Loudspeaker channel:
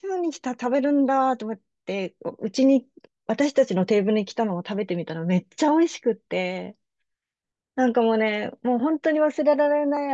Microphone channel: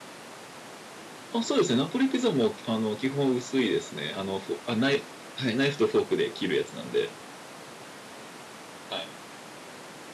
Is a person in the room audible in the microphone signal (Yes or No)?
Yes